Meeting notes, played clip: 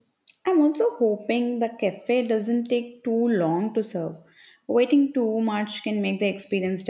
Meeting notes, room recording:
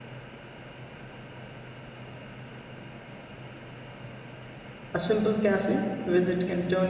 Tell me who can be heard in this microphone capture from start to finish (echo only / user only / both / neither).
user only